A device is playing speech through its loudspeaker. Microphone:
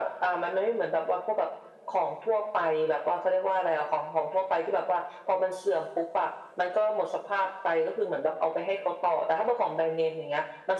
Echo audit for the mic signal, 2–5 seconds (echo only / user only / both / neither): echo only